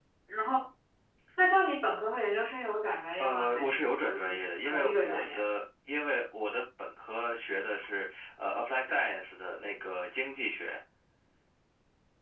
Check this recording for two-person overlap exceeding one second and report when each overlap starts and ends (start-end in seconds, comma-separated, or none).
3.2-5.4